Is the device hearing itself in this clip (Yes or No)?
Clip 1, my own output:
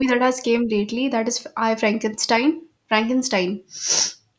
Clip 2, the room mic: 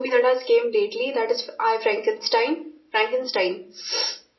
Yes